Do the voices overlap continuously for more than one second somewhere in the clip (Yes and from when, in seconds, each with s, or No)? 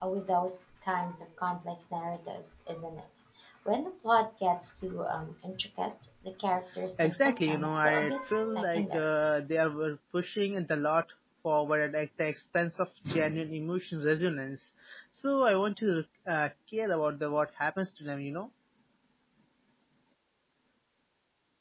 Yes, from 7.0 s